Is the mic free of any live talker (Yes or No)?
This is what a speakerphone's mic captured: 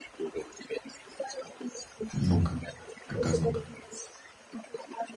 No